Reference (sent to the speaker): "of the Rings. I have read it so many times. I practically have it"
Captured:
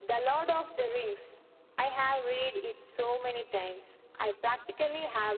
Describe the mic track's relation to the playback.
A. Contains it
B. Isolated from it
A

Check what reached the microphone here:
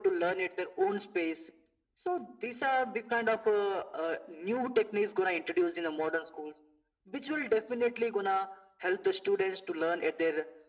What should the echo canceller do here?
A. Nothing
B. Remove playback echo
B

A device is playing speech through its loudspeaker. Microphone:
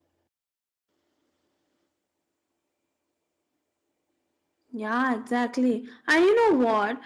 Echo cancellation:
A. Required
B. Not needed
B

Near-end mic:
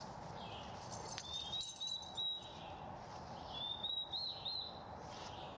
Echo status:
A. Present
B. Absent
B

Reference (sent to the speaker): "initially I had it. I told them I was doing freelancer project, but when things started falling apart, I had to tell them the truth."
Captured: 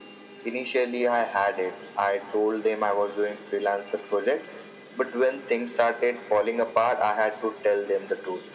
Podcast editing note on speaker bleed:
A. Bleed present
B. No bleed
A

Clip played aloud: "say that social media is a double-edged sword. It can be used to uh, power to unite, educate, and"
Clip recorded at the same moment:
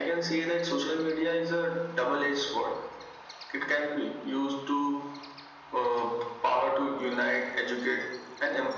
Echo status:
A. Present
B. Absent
A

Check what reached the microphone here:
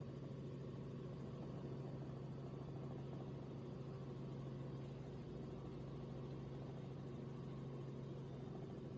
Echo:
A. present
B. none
B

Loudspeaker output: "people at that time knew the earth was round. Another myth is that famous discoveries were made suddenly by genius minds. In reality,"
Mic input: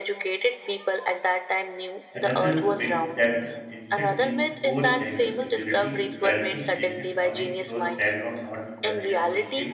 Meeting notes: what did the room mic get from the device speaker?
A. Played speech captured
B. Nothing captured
A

